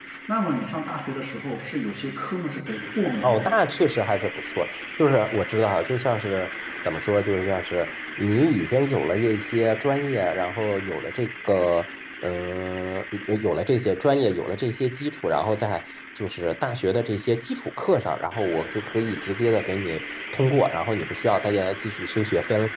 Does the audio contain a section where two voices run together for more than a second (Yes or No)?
No